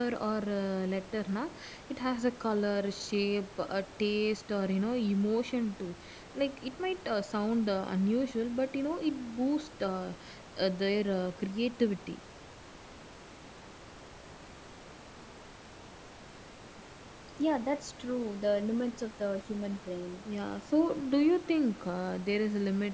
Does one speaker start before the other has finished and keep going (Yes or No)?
No